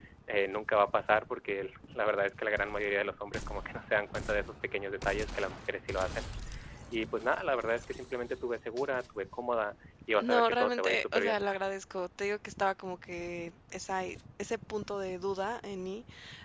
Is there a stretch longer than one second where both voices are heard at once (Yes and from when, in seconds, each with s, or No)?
Yes, from 10.2 s